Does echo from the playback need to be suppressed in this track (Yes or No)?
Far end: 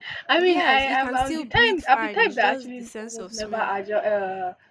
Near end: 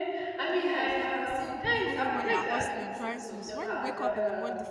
Yes